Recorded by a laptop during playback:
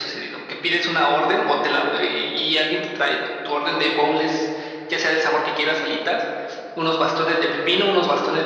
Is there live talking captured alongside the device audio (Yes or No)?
No